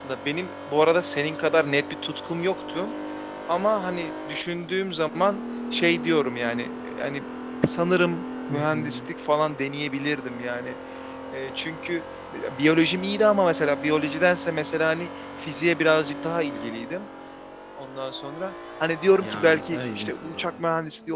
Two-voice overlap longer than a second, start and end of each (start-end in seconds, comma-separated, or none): 19.2-20.5